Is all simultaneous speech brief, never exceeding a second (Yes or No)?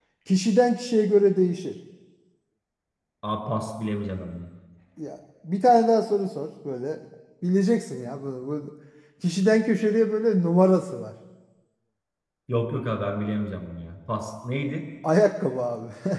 Yes